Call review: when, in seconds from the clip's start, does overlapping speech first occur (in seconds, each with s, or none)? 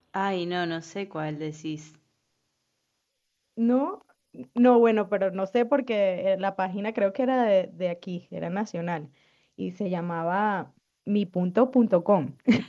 none